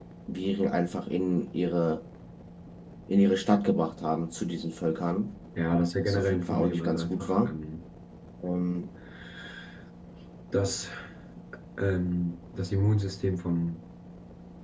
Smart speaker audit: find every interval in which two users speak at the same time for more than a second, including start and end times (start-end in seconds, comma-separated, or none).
6.0-7.6